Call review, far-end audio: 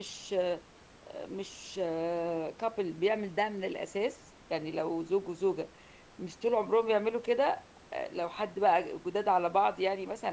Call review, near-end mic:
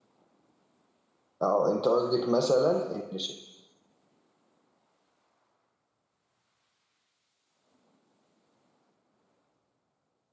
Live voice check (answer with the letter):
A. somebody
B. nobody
A